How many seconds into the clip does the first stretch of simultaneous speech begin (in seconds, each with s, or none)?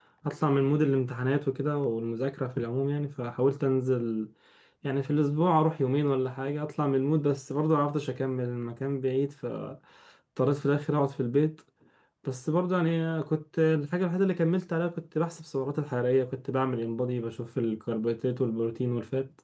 none